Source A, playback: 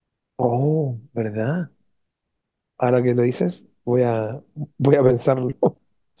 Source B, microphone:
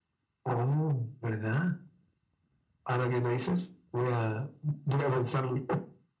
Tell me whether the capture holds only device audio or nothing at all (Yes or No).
Yes